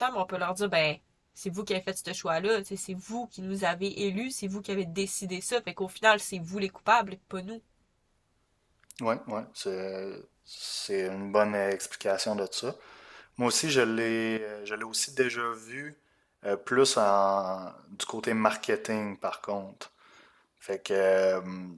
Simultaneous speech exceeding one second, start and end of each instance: none

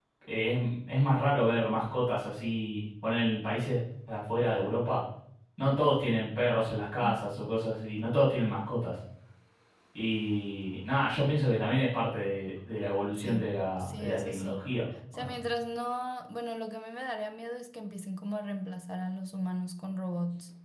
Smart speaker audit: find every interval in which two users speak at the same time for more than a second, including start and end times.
13.2-14.6

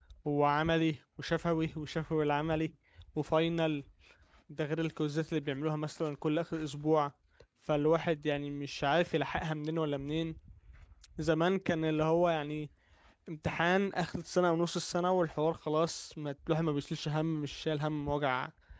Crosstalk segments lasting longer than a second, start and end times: none

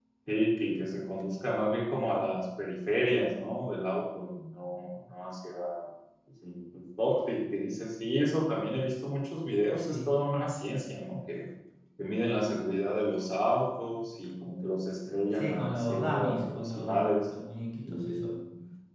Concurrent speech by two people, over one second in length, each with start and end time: 15.3-17.2

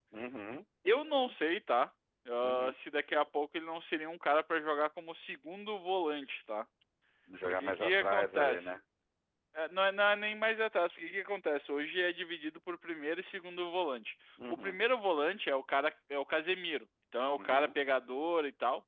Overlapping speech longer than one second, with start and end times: 7.5-8.7

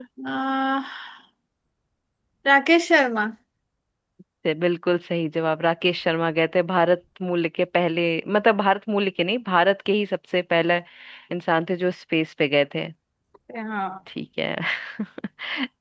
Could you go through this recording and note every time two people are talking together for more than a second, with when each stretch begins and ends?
none

